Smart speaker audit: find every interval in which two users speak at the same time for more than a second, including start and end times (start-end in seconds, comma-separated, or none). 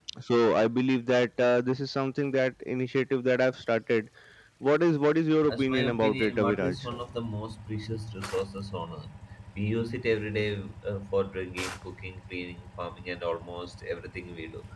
5.5-6.8